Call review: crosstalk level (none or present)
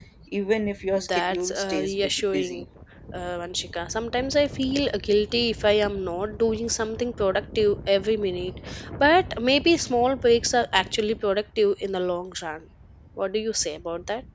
present